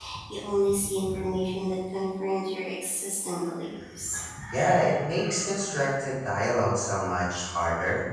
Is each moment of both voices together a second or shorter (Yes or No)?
Yes